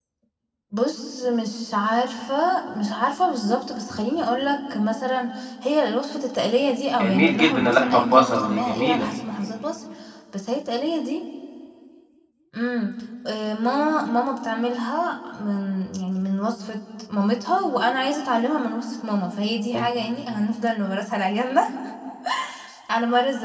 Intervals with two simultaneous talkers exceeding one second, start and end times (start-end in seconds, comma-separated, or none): 7.0-9.1